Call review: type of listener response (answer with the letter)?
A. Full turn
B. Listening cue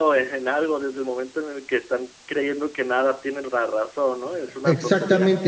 A